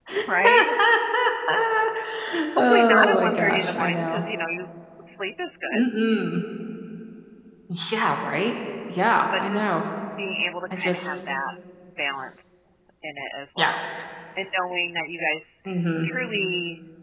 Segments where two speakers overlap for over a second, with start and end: 2.6-4.2

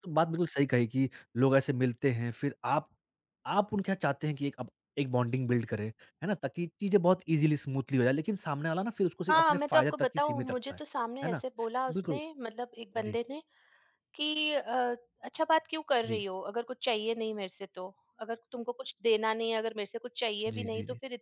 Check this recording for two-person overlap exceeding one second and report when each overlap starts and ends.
9.3-10.8

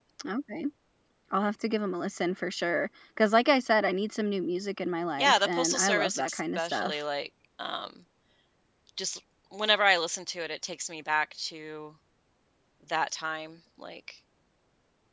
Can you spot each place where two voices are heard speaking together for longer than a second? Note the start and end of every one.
5.2-7.0

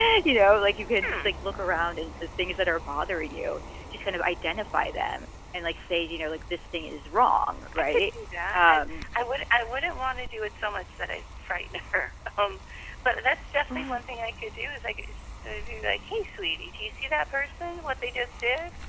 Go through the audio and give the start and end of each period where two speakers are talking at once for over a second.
none

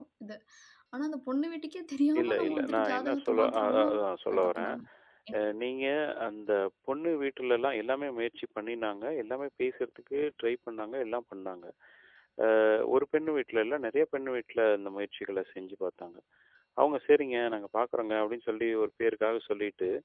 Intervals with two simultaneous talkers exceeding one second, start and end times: 2.2-3.9

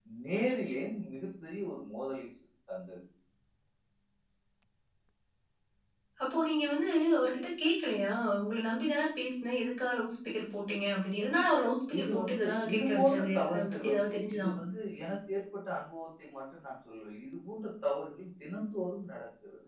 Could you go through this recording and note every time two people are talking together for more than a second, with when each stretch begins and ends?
12.0-14.7

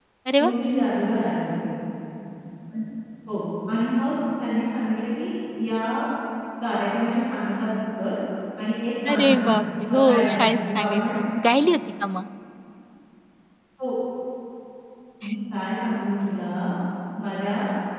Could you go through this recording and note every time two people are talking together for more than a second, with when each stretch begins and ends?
9.9-11.1

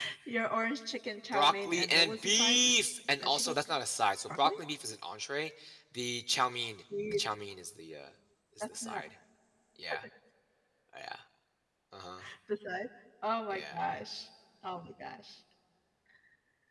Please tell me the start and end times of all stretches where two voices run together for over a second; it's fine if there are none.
1.3-2.7

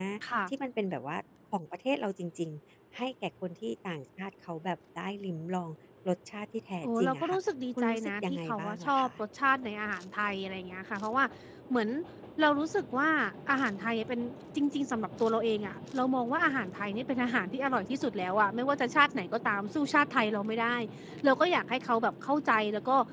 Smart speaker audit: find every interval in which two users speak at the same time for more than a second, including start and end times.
7.8-9.1

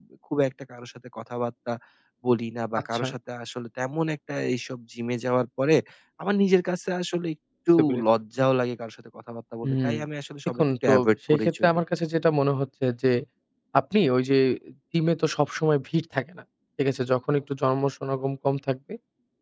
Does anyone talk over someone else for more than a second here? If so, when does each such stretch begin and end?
10.6-11.8

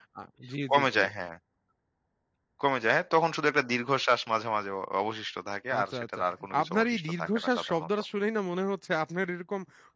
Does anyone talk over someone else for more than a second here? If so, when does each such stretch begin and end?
6.6-7.9

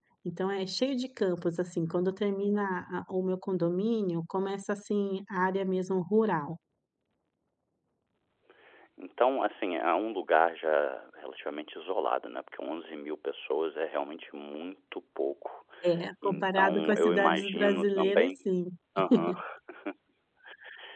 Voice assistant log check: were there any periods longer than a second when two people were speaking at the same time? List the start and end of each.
16.2-18.3

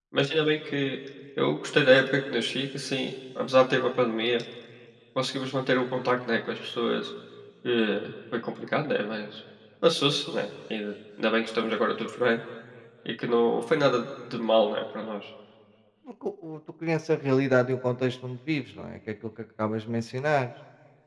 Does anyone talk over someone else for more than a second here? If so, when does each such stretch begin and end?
none

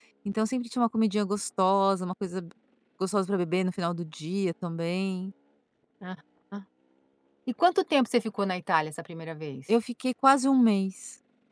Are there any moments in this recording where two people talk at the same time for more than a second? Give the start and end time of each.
none

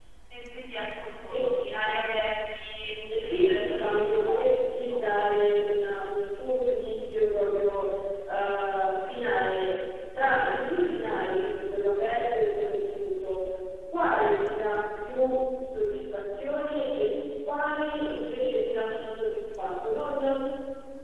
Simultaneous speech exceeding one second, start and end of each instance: 3.2-4.4

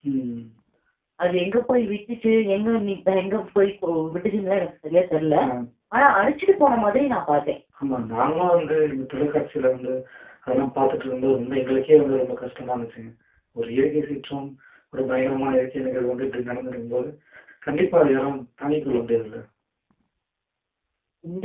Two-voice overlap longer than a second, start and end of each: none

